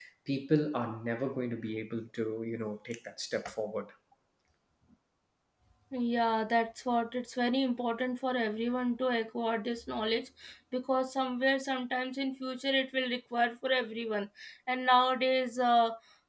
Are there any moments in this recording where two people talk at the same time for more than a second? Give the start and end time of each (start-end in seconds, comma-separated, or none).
none